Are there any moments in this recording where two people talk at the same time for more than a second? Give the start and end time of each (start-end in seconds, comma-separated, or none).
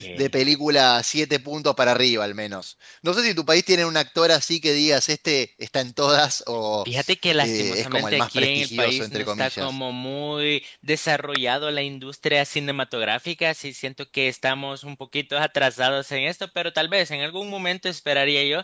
7.4-9.8